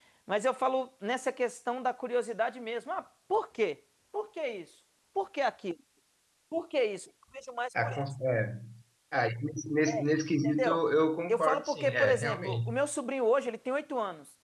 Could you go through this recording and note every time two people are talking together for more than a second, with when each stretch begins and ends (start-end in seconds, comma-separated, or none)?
11.3-12.7